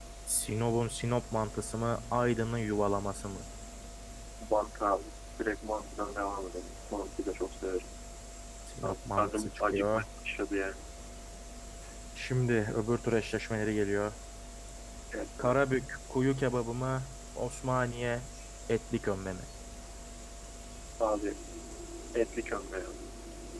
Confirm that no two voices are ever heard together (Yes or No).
No